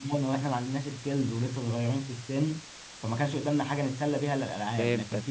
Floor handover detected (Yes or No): No